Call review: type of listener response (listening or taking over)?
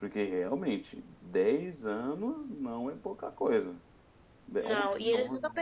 taking over